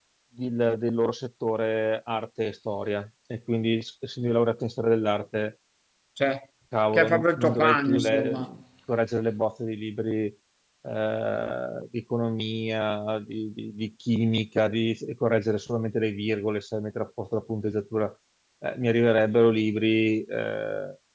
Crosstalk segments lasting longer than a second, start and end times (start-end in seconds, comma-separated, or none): 6.9-8.5